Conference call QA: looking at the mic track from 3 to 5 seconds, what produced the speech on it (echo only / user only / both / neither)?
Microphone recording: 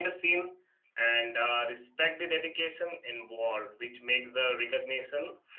echo only